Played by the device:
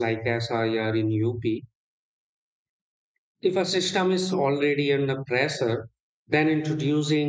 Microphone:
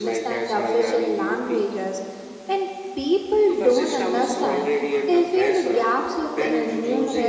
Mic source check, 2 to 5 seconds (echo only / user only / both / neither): both